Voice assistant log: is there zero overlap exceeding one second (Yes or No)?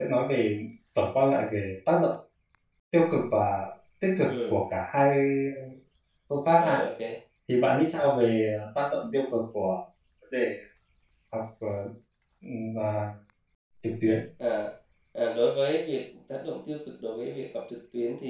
Yes